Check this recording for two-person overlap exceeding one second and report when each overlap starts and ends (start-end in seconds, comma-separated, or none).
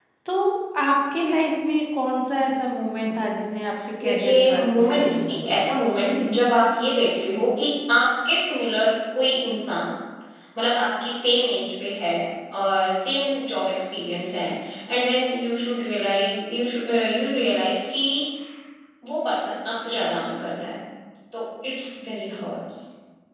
4.0-5.6